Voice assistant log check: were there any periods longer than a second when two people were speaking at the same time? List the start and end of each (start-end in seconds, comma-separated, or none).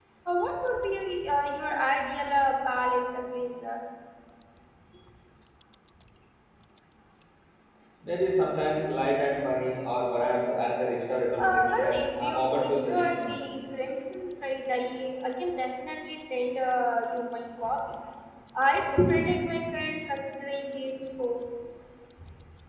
11.4-13.3